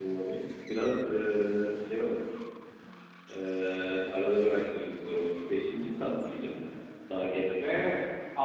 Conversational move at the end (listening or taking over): taking over